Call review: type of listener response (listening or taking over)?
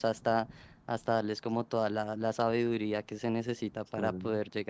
listening